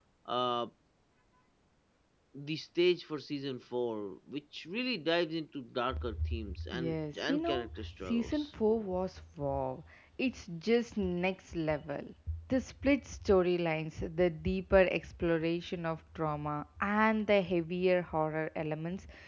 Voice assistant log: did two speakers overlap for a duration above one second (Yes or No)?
Yes